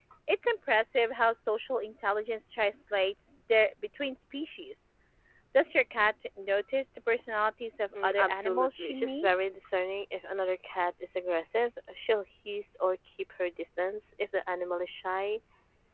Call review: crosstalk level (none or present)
present